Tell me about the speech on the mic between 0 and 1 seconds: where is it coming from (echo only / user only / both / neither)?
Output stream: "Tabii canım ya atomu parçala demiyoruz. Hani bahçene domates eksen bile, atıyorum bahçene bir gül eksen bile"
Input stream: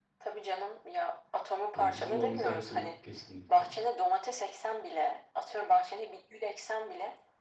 echo only